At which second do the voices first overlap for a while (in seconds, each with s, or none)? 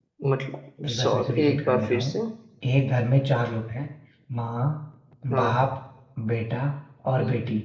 0.8 s